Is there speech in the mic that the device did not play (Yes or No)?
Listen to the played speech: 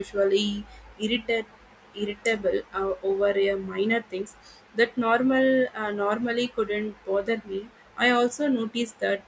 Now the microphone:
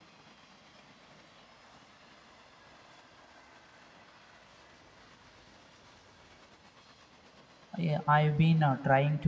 Yes